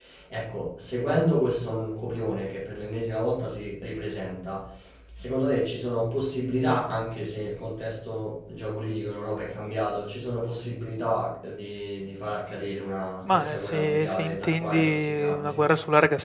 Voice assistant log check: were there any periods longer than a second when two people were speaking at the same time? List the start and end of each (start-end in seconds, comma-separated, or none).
13.2-15.6